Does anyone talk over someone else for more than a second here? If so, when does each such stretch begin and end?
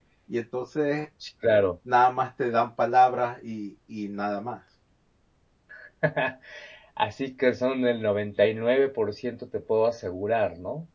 none

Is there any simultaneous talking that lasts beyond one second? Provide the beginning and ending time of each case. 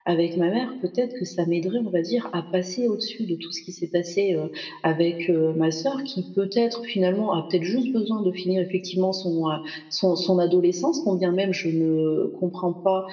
none

